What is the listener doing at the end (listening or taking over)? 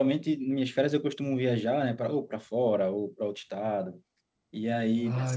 listening